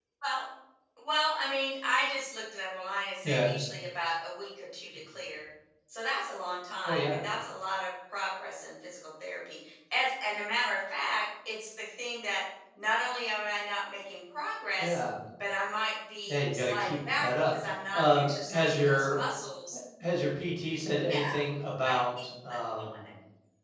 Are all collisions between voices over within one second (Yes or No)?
No